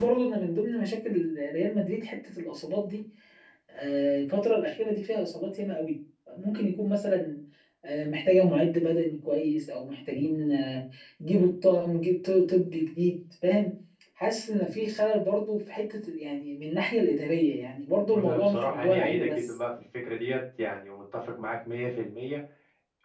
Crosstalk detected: Yes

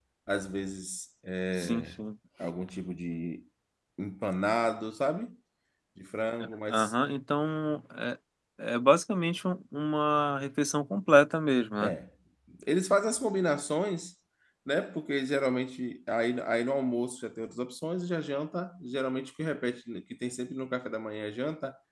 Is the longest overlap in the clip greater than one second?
No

